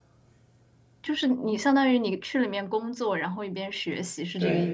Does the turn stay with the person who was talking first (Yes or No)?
No